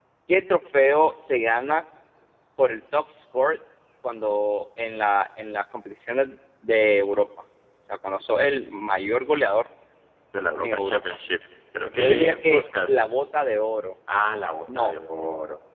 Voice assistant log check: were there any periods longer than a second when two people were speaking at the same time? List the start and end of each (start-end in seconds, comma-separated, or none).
11.9-13.2